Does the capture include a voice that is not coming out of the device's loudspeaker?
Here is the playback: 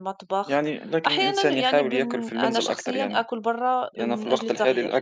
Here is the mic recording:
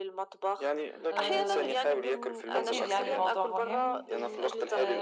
Yes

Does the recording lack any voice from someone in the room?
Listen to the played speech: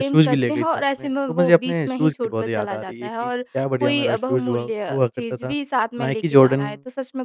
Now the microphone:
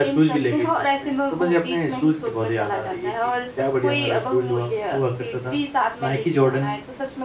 Yes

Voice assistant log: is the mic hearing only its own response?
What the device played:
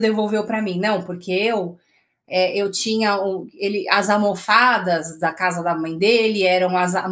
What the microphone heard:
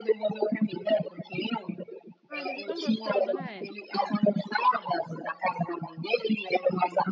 No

